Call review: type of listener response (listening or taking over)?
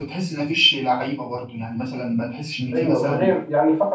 taking over